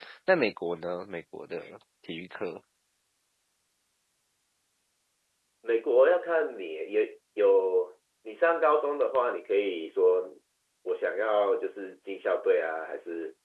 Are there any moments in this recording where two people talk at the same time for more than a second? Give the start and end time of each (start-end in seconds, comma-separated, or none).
none